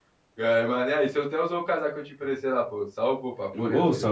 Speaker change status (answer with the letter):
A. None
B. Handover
B